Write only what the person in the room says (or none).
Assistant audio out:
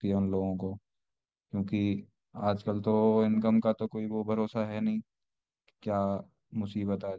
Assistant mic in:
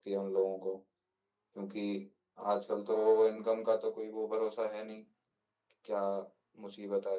none